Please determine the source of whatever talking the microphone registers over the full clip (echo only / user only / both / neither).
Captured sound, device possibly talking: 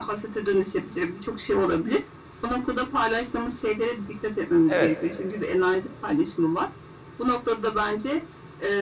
both